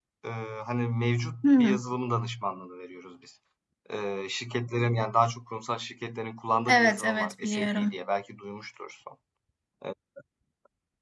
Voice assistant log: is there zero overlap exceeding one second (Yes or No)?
No